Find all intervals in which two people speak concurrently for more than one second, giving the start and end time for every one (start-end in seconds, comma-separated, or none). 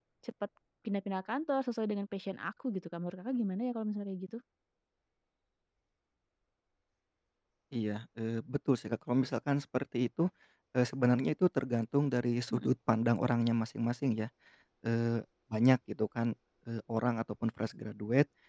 none